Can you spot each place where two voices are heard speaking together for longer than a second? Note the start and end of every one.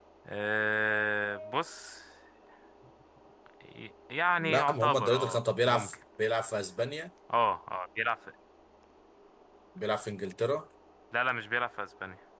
4.4-5.9

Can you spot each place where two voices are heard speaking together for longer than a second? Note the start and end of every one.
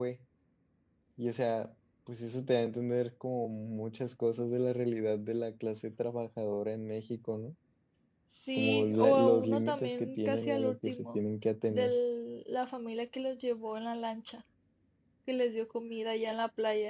8.6-11.2

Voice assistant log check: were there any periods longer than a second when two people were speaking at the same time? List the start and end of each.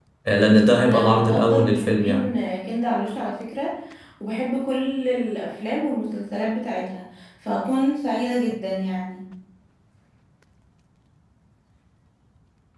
0.8-2.3

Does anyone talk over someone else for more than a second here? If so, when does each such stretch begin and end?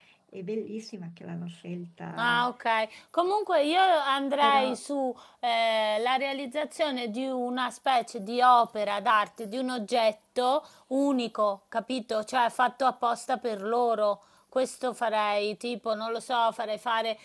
none

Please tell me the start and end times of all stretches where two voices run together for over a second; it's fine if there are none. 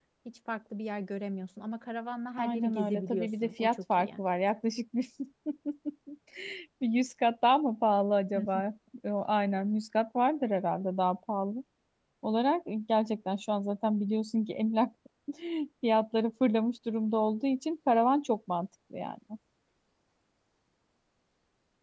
2.4-4.1

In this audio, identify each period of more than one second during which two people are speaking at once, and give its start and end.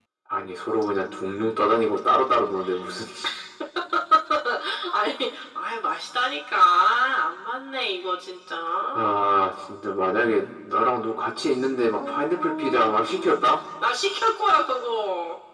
12.0-13.4

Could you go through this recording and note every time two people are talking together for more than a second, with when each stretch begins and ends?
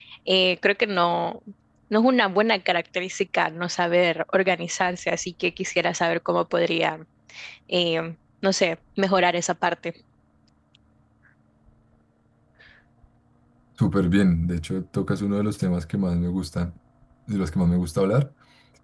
none

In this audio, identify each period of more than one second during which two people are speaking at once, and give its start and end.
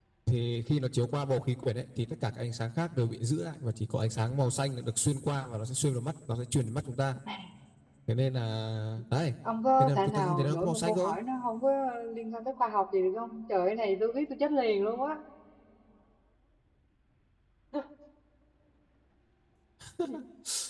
9.8-11.1

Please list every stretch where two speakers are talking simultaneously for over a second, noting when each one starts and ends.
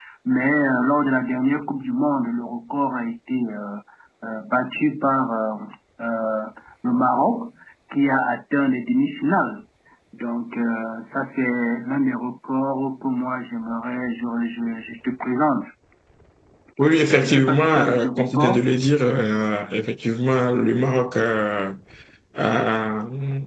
17.2-18.7

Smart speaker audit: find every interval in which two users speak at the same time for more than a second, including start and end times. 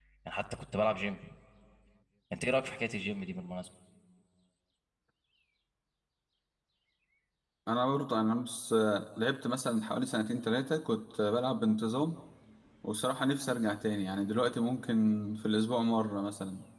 none

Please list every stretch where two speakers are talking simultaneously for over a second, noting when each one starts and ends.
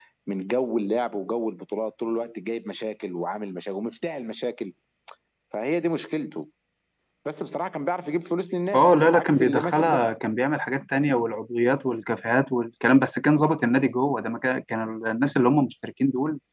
8.7-10.1

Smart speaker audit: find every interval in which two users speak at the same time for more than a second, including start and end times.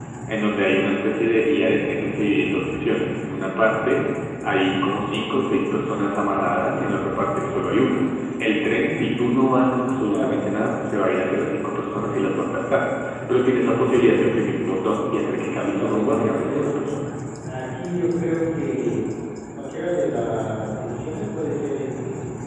15.3-16.7

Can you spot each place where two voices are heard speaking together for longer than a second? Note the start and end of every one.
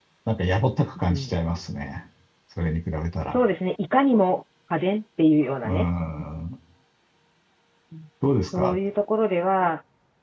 none

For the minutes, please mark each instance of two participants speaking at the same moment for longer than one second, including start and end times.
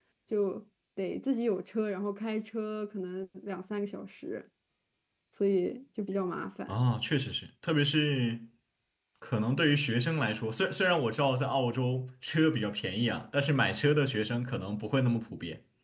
none

